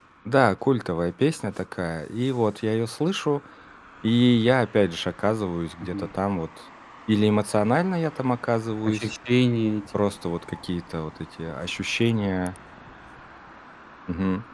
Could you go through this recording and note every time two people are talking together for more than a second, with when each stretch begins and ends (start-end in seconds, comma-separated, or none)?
none